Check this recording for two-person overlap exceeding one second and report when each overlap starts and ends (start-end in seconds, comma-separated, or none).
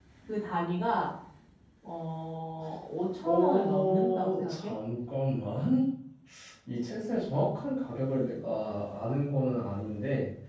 3.2-4.7